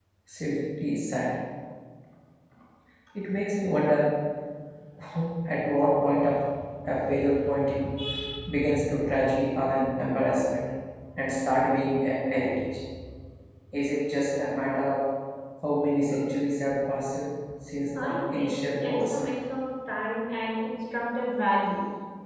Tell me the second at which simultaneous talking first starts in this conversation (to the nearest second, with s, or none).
18 s